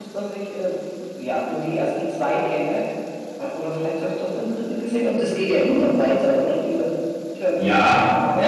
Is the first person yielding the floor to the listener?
Yes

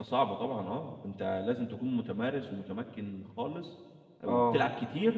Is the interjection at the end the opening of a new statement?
No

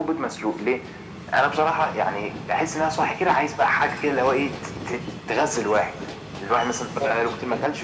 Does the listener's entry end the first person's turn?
No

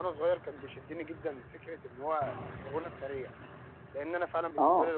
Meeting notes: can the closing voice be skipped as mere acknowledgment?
Yes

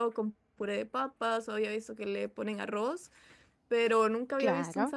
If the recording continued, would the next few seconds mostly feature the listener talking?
Yes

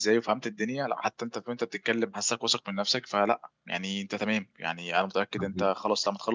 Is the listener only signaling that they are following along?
Yes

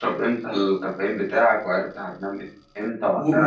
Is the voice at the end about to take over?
Yes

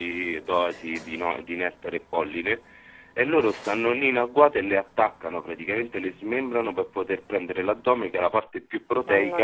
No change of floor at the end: Yes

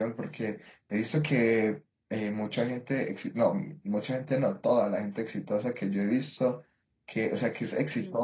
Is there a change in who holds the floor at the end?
No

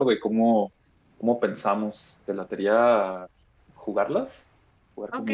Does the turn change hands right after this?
Yes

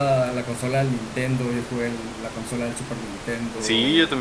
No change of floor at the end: No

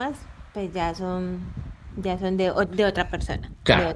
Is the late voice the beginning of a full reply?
Yes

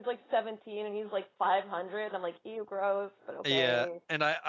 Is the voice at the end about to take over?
Yes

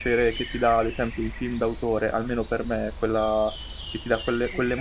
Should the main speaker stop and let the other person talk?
No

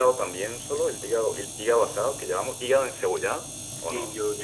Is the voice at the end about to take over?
Yes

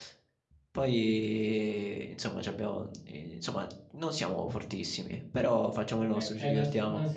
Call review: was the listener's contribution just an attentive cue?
No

